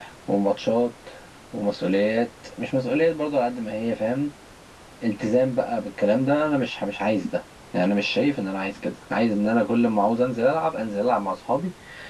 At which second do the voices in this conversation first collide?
none

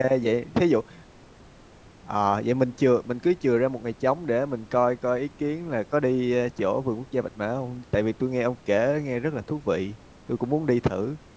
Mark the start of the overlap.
none

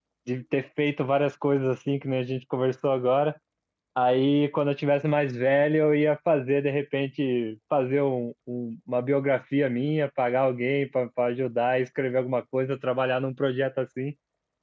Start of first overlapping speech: none

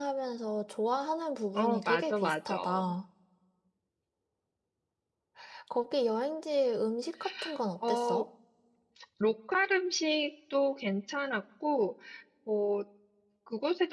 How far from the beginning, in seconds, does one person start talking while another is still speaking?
1.5 s

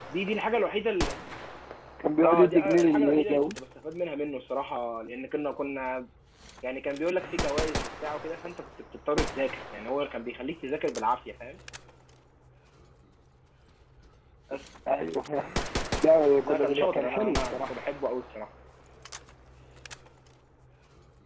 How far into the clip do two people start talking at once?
2.2 s

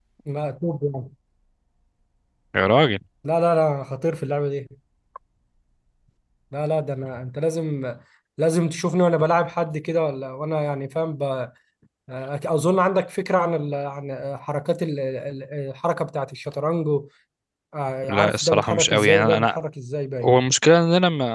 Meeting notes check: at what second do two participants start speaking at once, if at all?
18.1 s

